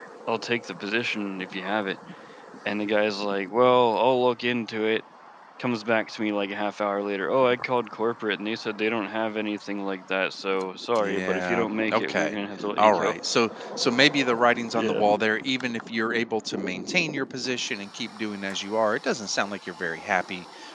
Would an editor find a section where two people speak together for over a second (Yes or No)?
Yes